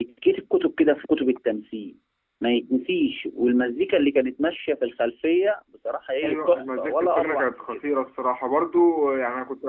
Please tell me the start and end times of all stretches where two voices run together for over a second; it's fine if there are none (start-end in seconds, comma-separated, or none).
6.2-7.8